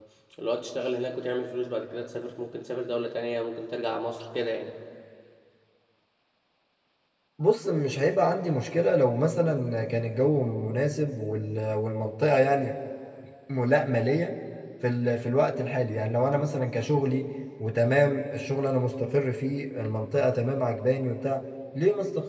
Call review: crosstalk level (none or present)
none